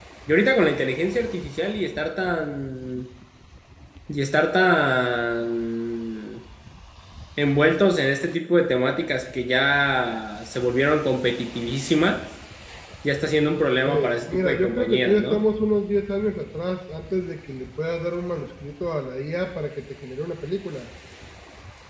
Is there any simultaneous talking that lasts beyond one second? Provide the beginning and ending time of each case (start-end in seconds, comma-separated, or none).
13.8-15.4